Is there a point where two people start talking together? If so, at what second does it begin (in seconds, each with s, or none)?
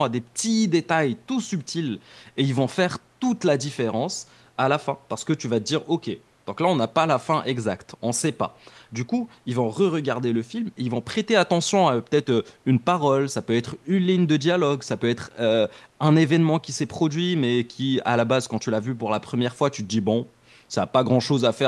none